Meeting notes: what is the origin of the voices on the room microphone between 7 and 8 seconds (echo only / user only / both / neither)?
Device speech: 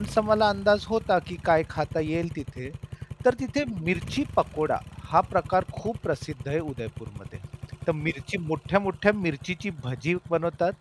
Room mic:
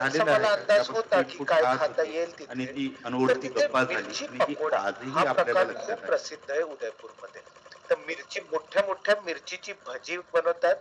echo only